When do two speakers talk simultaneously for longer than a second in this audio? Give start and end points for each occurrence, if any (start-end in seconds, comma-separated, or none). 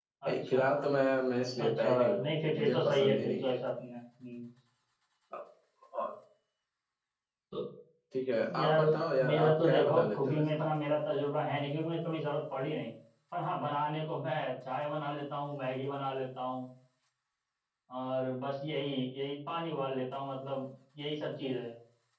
1.6-3.6, 9.3-10.5